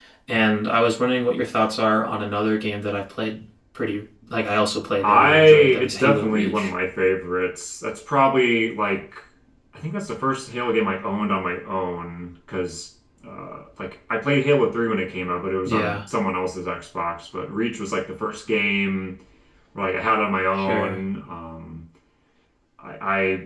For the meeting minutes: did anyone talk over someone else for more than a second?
Yes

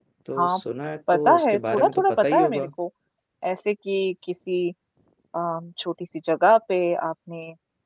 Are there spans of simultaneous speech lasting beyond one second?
Yes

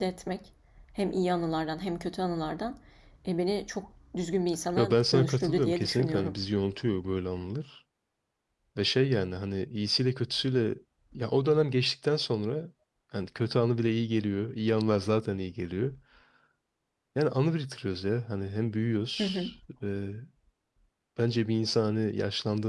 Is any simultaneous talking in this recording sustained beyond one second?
Yes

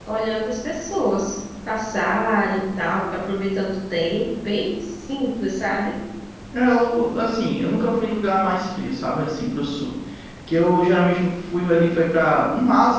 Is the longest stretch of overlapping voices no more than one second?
Yes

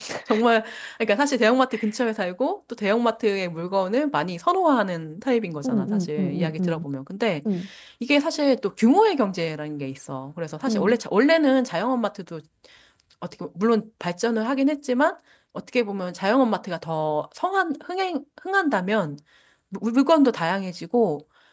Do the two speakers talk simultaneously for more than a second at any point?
Yes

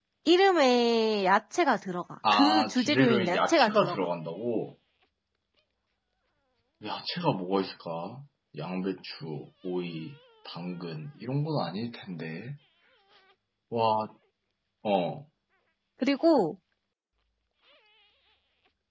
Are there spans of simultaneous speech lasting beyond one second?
Yes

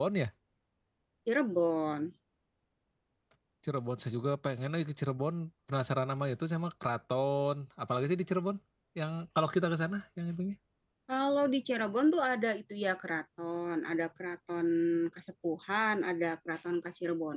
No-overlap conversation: Yes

